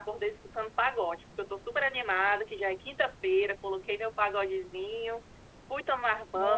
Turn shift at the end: No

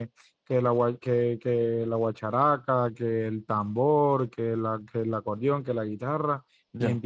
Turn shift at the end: No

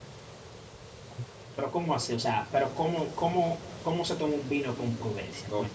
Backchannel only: No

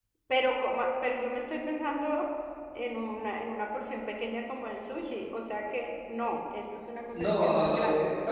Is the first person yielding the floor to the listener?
Yes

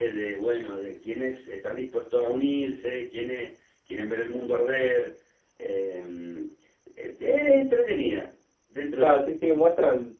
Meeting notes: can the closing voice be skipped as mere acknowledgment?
No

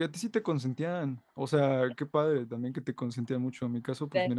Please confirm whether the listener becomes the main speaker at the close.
No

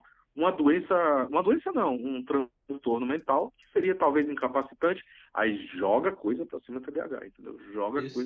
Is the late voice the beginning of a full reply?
Yes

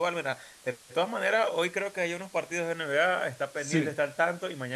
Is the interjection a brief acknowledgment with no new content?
Yes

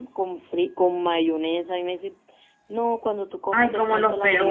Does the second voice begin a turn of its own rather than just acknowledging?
Yes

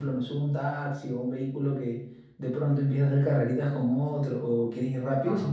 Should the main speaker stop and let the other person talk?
No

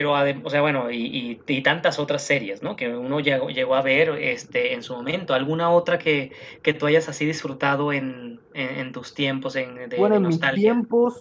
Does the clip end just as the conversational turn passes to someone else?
Yes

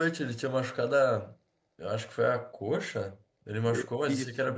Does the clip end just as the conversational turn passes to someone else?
No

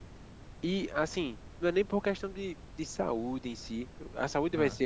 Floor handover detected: No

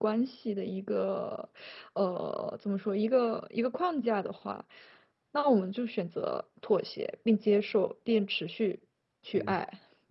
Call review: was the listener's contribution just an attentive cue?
No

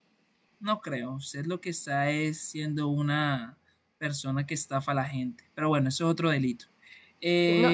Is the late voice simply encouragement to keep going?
No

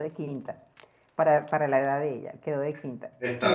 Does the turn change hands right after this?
No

